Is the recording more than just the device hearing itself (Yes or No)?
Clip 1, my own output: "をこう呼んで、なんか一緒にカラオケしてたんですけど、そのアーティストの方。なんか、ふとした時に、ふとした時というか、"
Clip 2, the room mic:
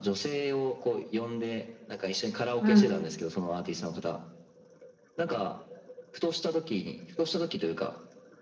Yes